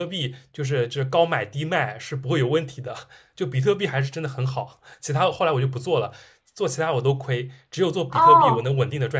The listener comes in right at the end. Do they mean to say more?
Yes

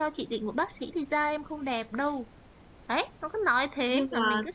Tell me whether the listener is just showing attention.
No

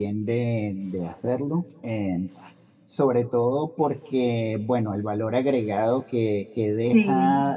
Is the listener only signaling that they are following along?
Yes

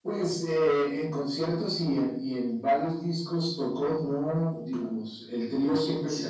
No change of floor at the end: Yes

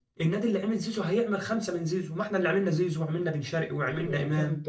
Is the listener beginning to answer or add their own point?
Yes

